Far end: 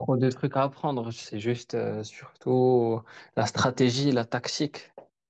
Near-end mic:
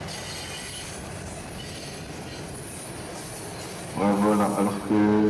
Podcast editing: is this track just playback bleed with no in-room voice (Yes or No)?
No